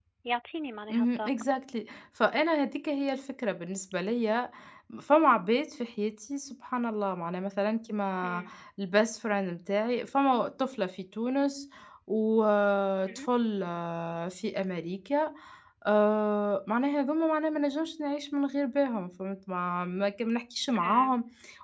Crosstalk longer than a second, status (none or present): none